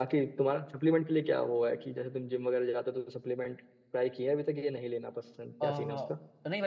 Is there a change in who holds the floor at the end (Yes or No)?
Yes